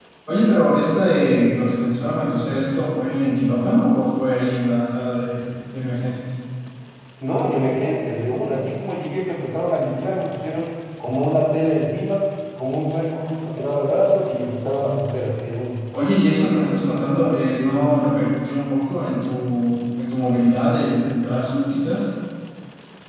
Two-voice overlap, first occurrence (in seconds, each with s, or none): none